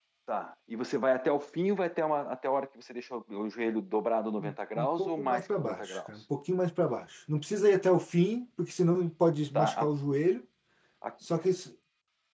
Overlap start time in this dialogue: 4.8 s

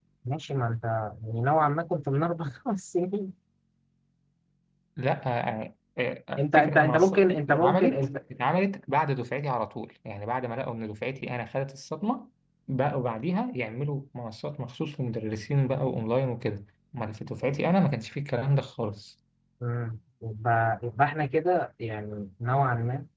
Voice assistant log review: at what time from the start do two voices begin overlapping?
6.4 s

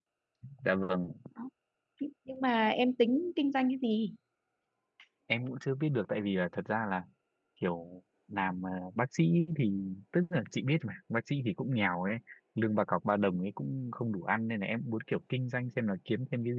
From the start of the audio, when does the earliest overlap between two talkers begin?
none

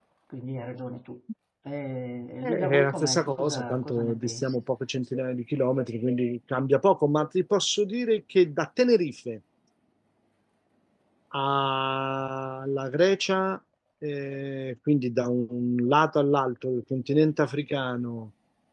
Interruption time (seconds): 2.4 s

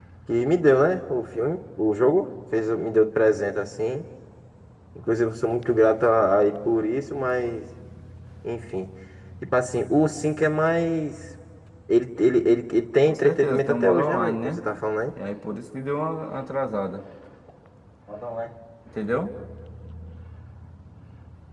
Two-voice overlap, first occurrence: 13.0 s

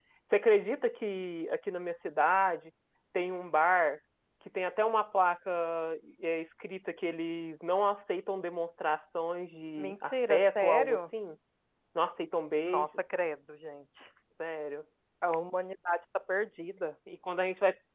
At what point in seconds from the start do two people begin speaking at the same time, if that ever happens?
9.8 s

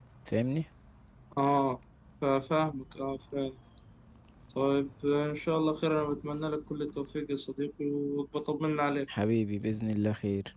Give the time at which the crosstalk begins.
none

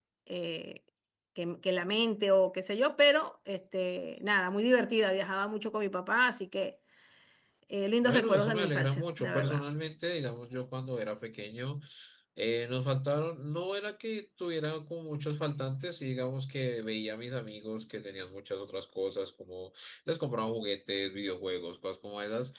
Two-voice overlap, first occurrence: 8.0 s

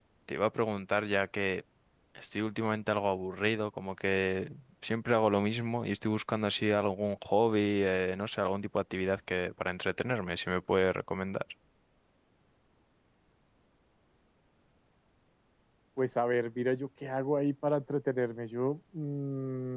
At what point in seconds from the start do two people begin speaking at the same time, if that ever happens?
none

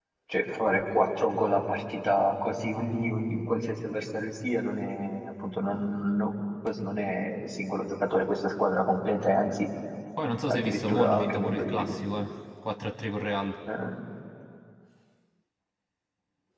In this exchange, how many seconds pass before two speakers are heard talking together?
10.5 s

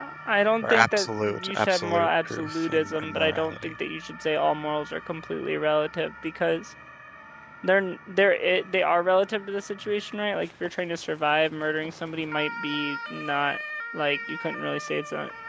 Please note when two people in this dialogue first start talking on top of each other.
0.6 s

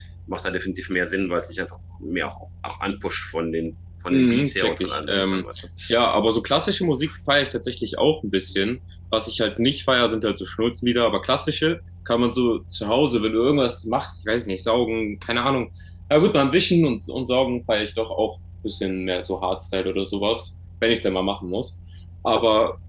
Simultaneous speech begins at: 4.1 s

